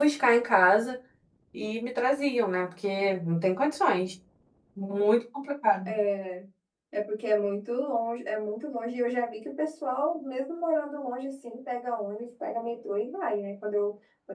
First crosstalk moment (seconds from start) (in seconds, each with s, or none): none